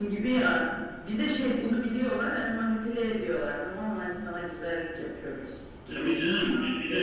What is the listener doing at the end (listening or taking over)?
taking over